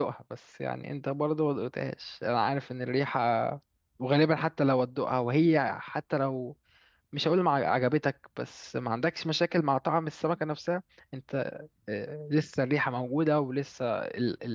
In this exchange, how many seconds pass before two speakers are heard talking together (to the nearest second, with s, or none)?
none